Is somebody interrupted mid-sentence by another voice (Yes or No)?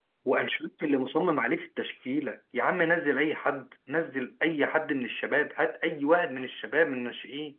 No